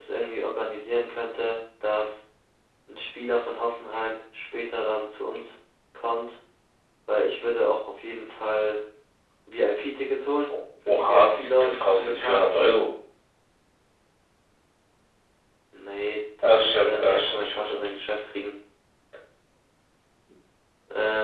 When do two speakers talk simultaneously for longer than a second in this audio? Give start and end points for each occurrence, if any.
10.9-12.5, 16.4-17.9

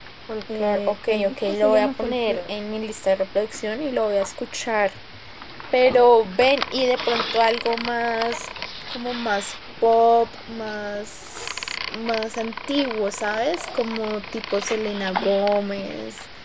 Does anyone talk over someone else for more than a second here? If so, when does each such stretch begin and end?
0.6-2.4

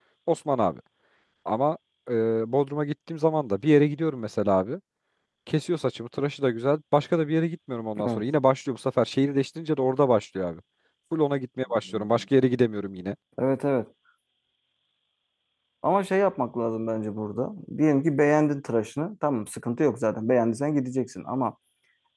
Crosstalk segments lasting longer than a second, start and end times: none

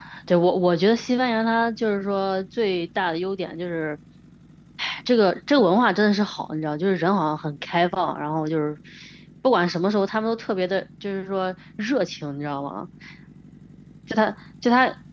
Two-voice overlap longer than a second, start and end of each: none

